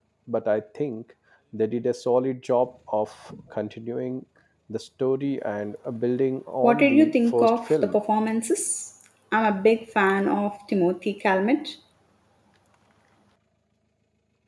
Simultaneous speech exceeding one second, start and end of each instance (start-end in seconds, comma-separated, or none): 6.6-8.0